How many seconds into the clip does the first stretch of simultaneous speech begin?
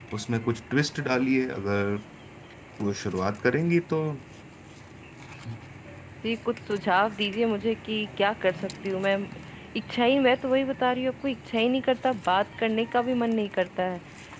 none

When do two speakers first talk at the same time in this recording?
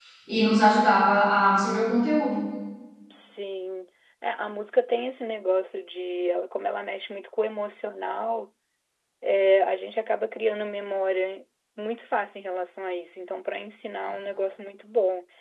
none

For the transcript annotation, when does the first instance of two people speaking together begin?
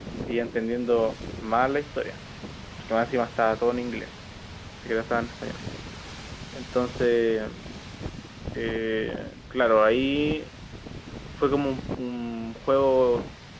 none

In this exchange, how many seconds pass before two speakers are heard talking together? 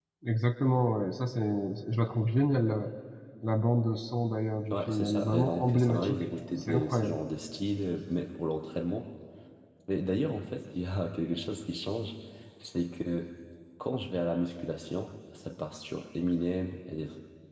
5 s

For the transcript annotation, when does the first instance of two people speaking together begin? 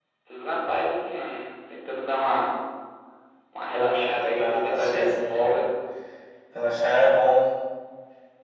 4 s

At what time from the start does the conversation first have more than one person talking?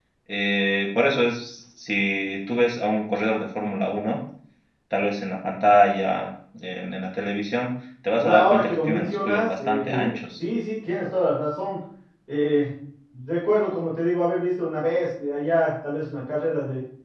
8 s

